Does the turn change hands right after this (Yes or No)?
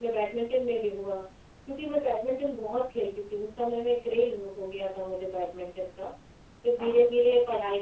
No